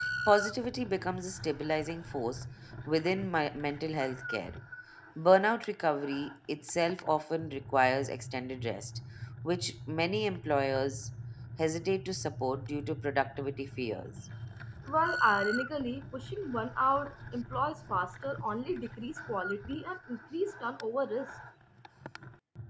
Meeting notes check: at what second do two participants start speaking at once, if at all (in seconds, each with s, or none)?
none